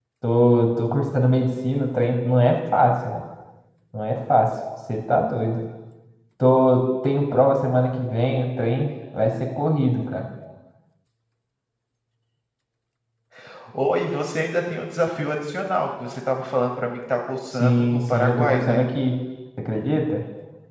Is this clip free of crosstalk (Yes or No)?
No